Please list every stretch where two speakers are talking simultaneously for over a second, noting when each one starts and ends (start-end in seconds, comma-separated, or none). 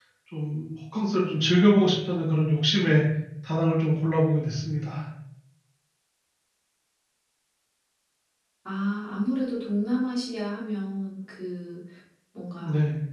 none